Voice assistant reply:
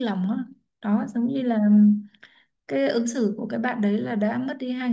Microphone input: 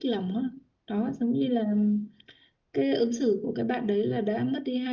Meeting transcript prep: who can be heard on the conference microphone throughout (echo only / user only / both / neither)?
echo only